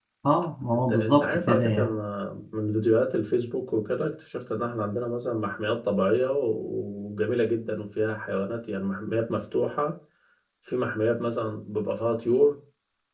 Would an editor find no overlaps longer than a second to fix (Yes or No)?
No